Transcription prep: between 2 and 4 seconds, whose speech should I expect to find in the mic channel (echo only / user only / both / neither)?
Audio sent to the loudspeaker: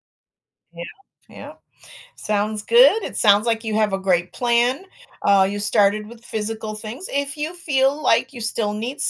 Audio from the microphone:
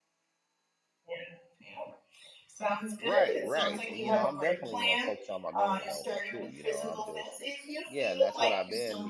both